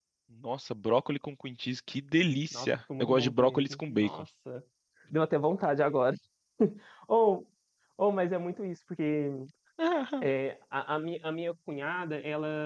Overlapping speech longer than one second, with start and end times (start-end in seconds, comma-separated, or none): 2.5-4.2